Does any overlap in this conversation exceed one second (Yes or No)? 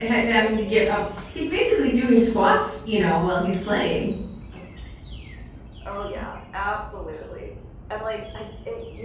No